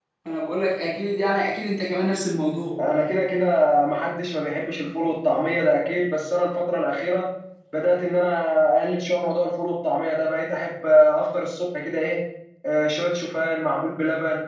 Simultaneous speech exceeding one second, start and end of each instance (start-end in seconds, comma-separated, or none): none